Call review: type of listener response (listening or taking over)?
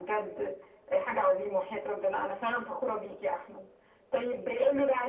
listening